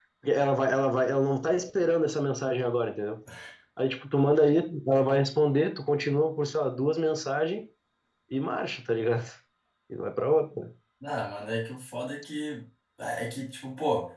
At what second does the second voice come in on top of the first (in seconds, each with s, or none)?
none